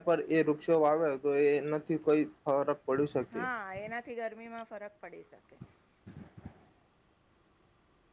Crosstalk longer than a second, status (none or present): none